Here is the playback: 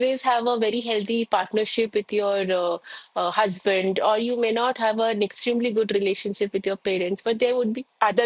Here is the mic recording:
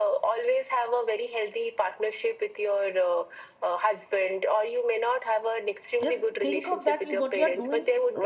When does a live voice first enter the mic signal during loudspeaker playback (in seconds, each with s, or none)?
6.0 s